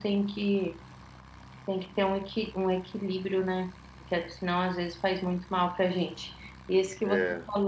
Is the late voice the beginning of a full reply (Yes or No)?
No